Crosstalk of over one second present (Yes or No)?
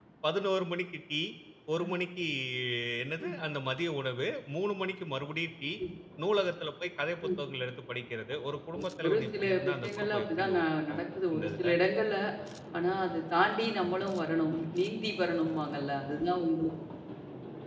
Yes